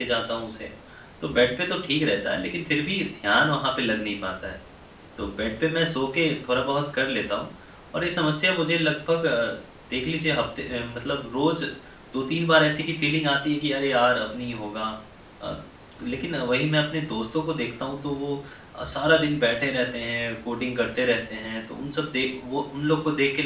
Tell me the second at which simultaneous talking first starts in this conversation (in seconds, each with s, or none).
none